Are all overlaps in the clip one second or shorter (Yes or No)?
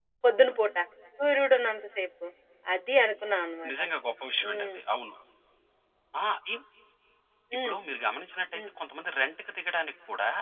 Yes